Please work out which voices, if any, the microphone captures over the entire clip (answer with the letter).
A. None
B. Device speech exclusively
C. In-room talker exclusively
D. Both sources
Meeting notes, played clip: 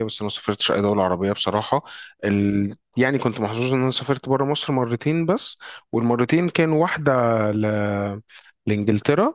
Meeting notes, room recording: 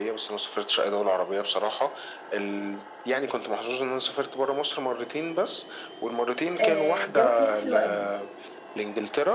D